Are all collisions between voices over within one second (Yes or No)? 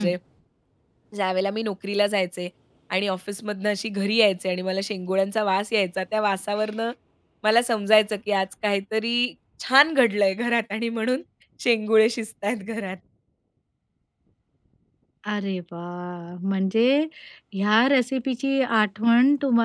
Yes